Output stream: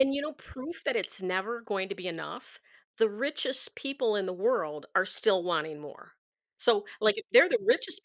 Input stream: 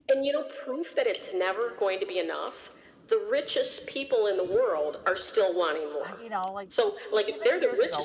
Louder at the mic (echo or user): echo